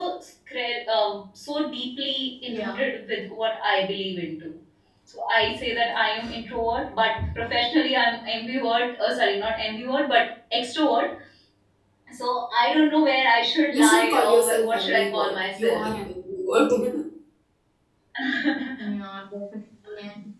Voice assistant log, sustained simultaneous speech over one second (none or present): present